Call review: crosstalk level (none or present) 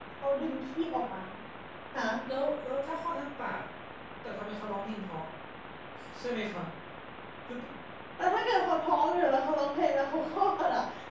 none